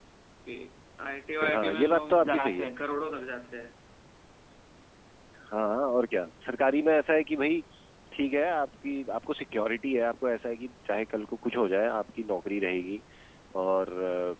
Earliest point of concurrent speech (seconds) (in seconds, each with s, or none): 1.4 s